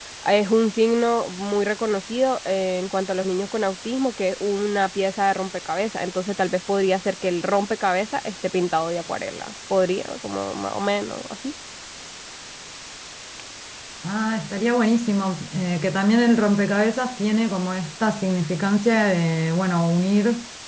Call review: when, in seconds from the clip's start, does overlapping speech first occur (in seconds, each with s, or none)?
none